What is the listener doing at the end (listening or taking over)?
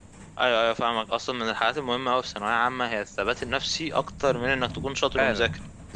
taking over